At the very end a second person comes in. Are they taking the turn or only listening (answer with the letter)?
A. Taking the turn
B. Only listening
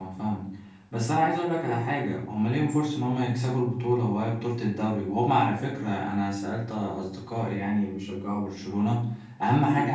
B